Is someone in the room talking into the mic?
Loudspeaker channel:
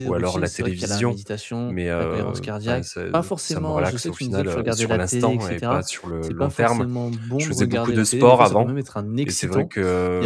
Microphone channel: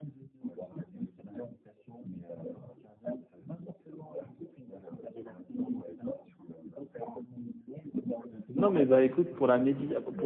Yes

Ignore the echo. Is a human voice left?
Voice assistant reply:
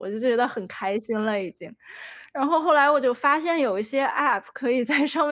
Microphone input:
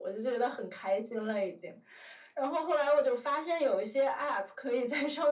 No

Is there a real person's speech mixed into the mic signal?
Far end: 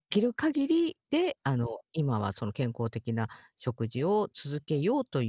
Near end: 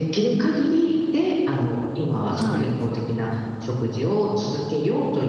Yes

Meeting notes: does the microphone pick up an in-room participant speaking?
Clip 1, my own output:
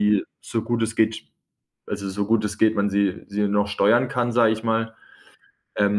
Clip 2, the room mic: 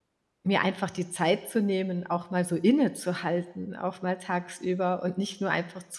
Yes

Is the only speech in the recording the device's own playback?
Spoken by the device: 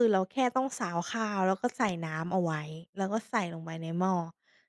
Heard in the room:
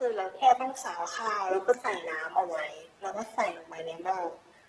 Yes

